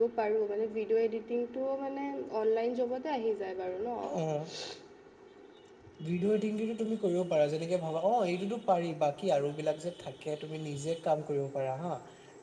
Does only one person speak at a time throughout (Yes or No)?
Yes